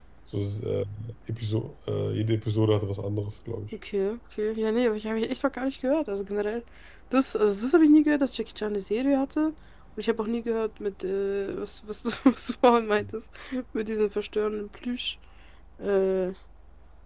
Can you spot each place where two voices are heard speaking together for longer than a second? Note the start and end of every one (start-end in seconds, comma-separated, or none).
none